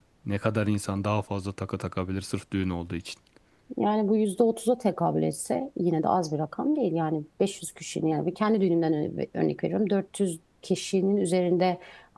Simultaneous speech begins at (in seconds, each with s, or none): none